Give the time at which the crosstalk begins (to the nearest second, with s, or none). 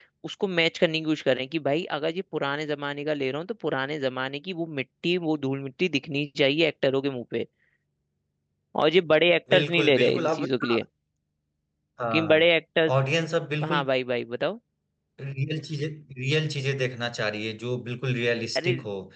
10 s